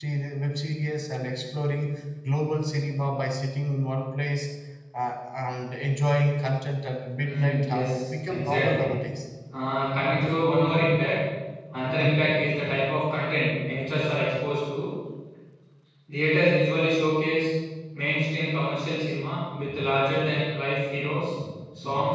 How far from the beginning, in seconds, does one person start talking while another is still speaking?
7.2 s

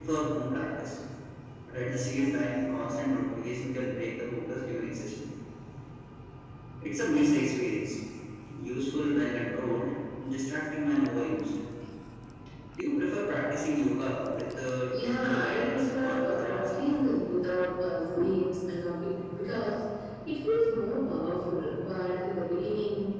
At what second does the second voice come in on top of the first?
14.9 s

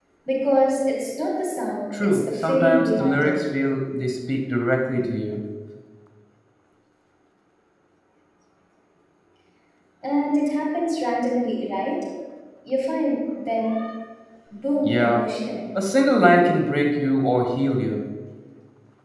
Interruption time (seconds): 2.0 s

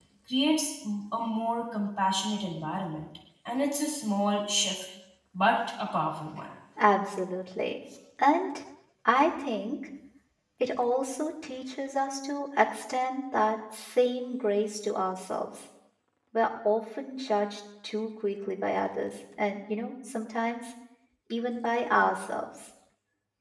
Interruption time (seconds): none

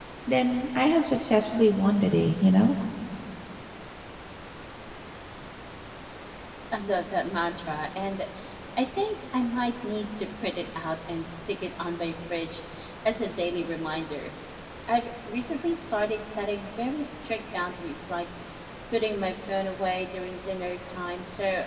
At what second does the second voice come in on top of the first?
none

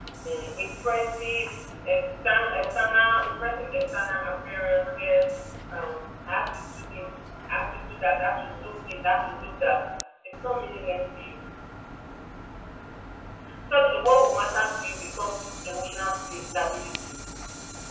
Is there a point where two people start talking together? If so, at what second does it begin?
none

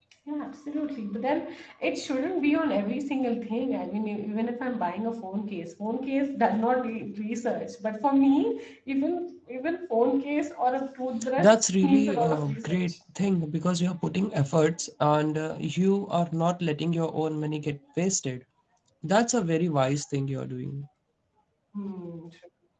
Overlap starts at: 11.2 s

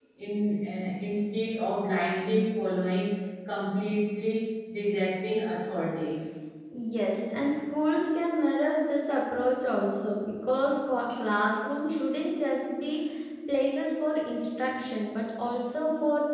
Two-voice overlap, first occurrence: none

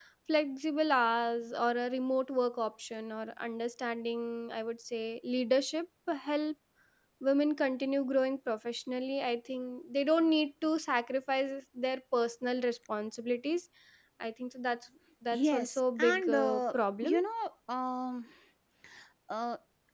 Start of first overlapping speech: 15.3 s

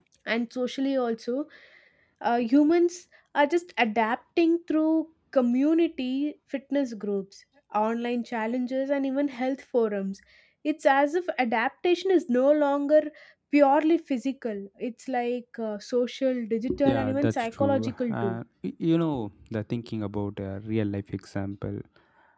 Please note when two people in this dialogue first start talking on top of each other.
16.7 s

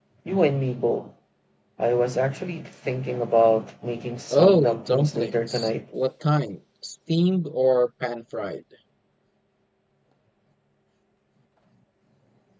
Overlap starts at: 4.3 s

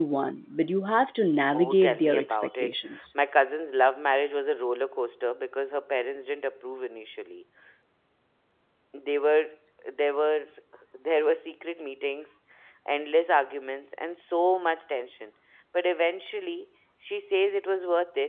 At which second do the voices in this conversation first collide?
1.5 s

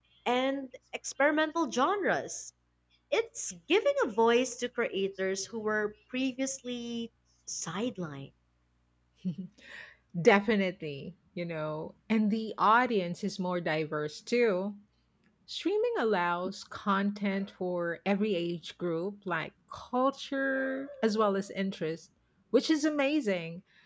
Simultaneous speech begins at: none

